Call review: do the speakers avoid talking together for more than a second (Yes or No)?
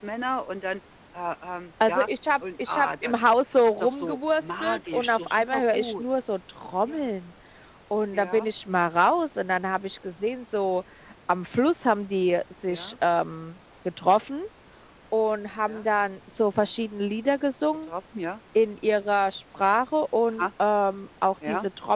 No